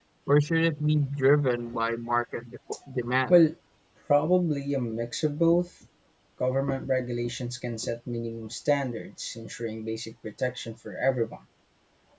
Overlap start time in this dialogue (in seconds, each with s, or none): none